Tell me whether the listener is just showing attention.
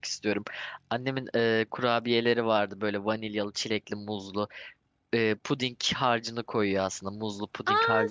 No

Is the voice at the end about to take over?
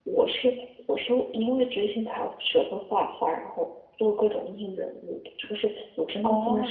Yes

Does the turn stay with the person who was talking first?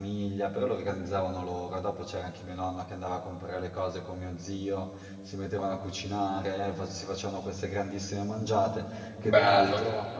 Yes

